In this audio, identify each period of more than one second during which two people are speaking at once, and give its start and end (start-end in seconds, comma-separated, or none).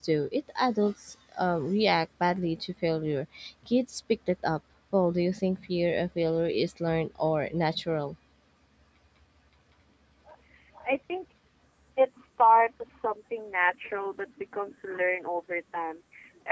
none